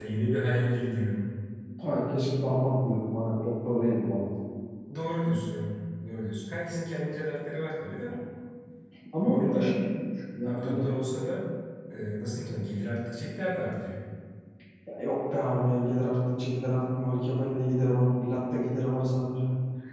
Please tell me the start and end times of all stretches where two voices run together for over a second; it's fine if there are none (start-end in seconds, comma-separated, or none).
none